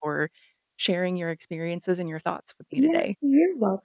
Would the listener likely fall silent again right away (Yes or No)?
No